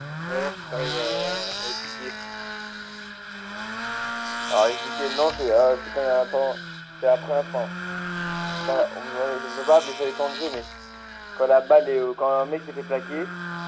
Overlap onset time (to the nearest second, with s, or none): none